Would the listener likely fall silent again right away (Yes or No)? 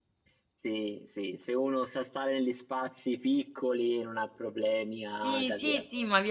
No